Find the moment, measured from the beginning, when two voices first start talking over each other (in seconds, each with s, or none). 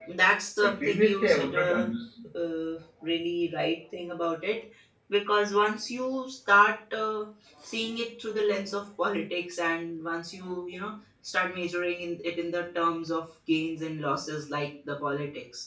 0.6 s